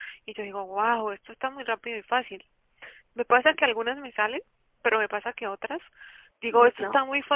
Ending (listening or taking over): listening